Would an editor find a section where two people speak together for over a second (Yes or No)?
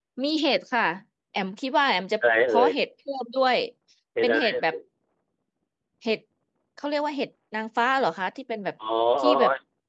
No